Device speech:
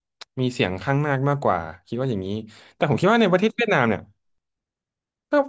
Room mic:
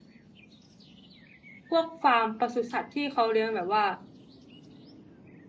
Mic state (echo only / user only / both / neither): user only